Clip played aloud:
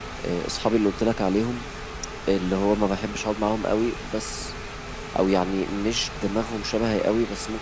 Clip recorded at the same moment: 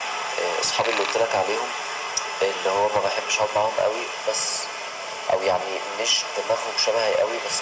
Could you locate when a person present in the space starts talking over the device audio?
none

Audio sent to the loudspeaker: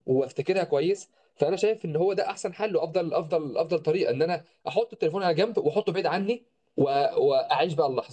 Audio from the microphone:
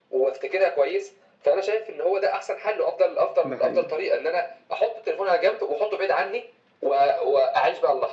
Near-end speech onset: 3 s

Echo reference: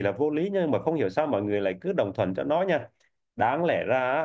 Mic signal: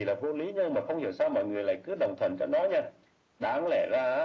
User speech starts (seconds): none

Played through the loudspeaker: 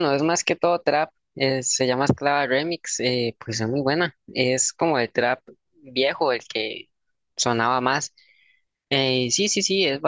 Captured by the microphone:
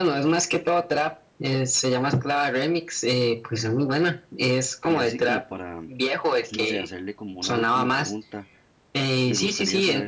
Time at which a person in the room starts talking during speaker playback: 5 s

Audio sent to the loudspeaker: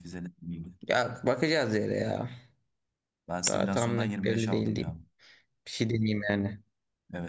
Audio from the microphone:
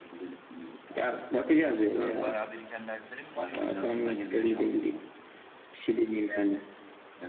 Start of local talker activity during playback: 1 s

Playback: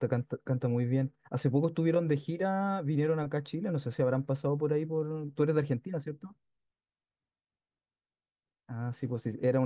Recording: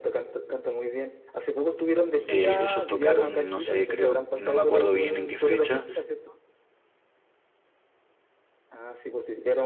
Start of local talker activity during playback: 2 s

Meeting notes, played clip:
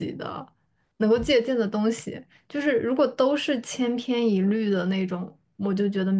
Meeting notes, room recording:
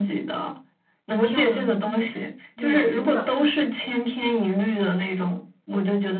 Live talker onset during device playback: 1 s

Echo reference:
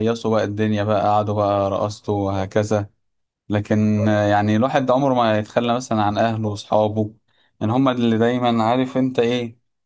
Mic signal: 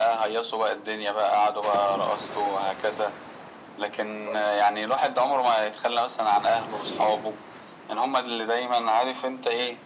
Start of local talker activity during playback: none

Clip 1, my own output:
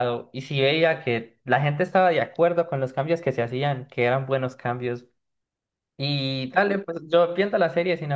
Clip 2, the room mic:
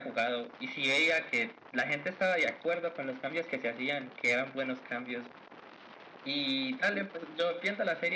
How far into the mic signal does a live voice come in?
none

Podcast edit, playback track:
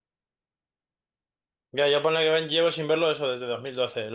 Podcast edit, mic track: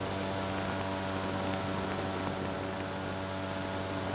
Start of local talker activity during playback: none

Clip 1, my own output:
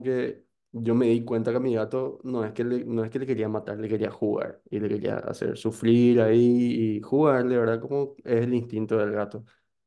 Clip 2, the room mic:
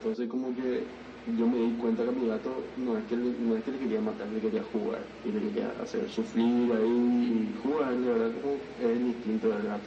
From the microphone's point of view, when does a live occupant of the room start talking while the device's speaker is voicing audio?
none

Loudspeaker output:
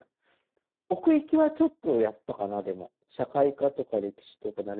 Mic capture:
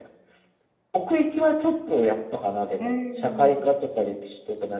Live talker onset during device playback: 3 s

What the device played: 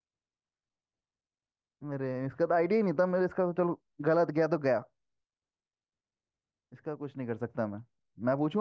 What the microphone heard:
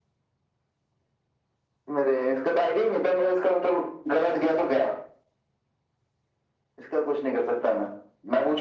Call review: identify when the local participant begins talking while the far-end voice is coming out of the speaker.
none

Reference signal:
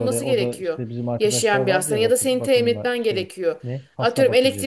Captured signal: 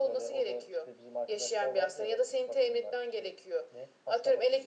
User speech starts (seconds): none

